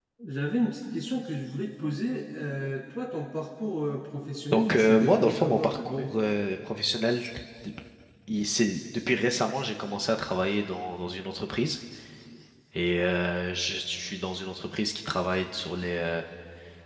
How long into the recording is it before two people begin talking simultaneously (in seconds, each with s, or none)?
4.5 s